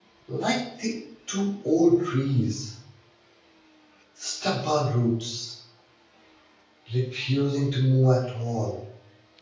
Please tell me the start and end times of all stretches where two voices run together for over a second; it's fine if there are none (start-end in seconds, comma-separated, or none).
none